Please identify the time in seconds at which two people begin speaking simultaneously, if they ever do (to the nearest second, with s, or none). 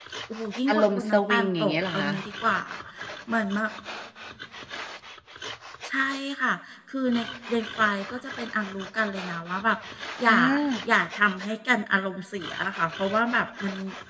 1 s